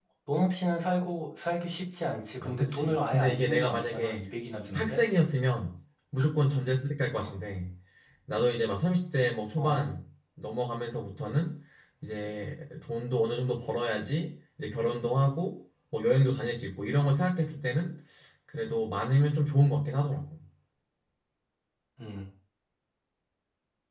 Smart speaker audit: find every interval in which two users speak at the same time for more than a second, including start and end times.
2.4-4.2

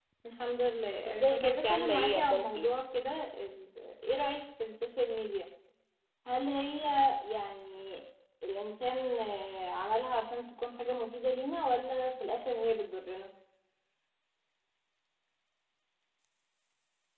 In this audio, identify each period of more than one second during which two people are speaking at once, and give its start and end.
1.1-2.7

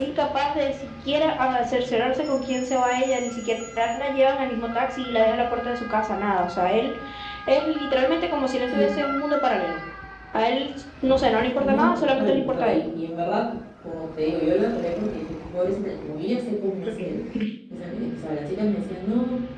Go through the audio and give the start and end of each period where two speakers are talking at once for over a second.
11.6-12.8

